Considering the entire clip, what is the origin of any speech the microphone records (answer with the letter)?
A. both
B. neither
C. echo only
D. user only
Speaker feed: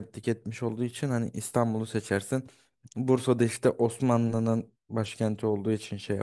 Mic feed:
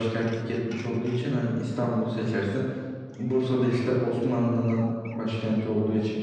C